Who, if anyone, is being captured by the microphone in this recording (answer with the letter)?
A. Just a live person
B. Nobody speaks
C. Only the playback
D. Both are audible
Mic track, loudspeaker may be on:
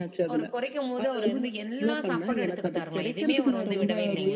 D